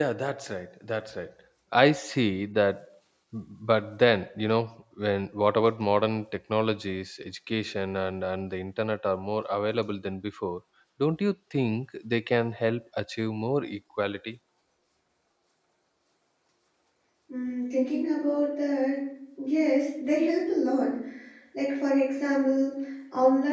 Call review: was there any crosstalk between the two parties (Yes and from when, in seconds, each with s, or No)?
No